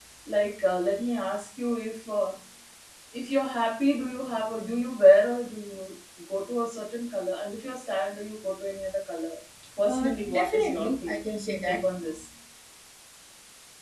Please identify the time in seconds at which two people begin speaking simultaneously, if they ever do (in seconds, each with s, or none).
9.8 s